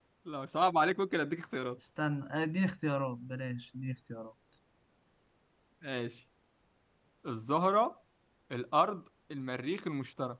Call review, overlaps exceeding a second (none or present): none